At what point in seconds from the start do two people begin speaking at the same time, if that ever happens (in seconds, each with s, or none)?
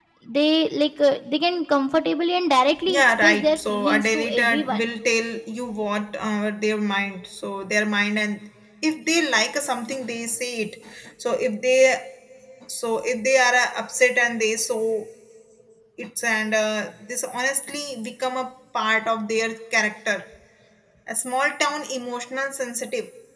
2.9 s